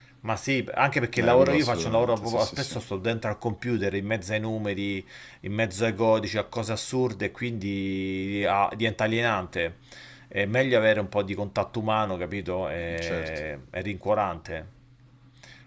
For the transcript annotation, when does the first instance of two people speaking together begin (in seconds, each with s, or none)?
1.2 s